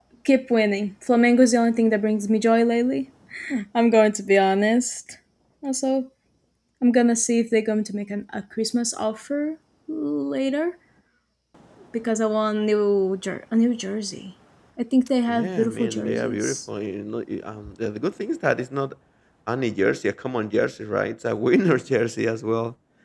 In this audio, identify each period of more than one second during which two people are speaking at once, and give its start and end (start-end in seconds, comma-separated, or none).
15.3-16.6